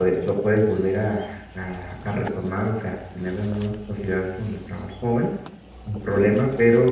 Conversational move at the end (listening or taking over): listening